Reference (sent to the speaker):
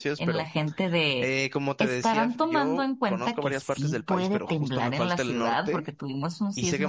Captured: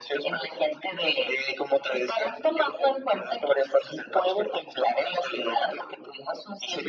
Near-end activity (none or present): none